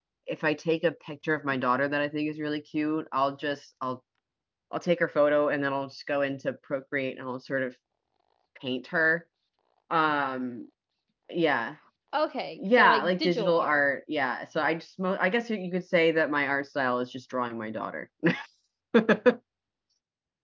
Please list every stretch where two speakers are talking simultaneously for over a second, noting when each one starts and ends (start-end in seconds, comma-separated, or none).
12.6-13.8